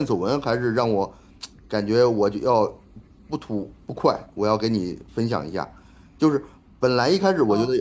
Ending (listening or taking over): listening